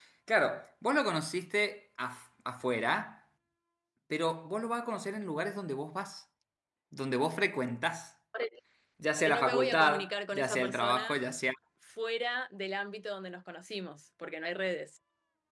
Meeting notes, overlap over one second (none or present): present